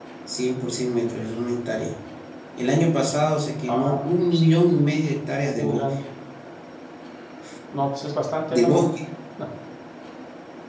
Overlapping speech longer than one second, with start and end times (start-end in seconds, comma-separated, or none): none